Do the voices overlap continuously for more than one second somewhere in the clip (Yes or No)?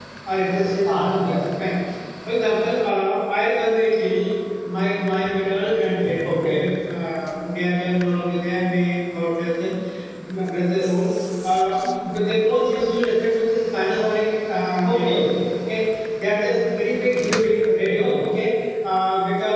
No